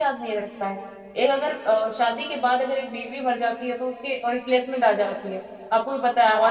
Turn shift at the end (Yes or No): Yes